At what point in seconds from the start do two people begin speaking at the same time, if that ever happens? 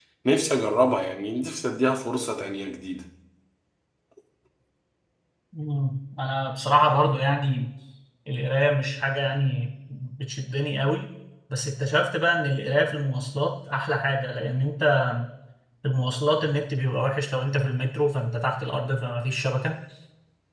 none

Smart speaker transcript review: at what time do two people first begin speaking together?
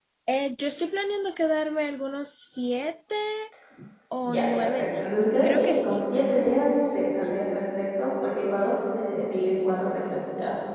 4.3 s

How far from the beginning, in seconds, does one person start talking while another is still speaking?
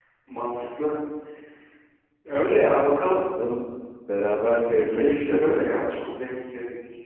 4.7 s

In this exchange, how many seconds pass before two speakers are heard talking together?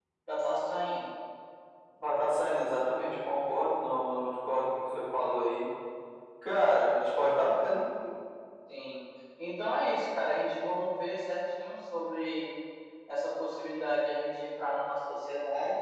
none

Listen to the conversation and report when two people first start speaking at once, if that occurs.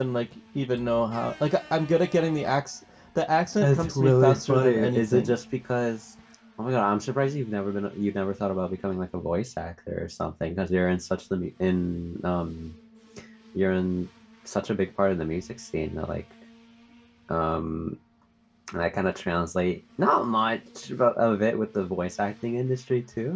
3.6 s

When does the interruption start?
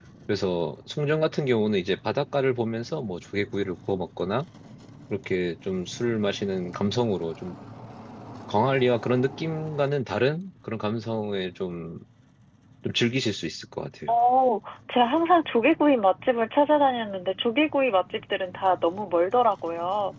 none

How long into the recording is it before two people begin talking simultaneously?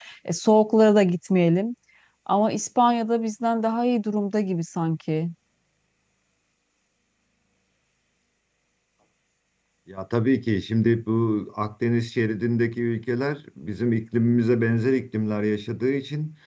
none

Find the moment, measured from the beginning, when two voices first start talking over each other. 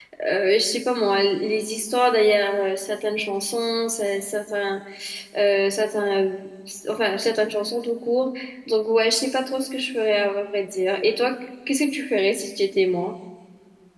none

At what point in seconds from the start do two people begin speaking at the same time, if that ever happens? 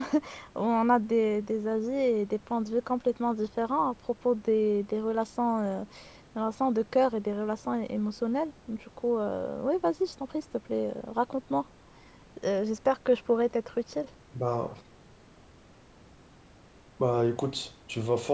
none

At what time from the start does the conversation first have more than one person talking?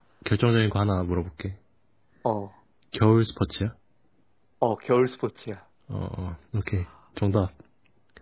none

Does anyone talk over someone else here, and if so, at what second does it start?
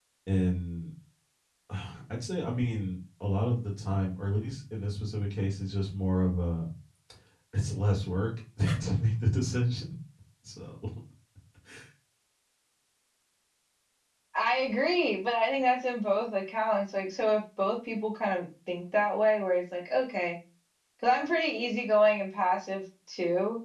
none

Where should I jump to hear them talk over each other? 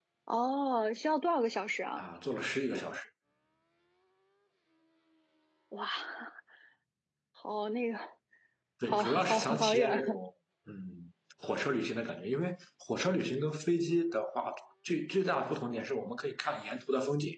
8.9 s

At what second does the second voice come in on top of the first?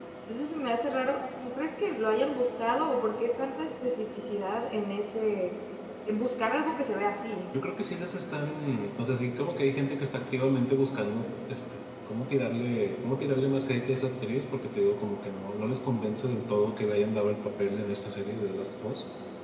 none

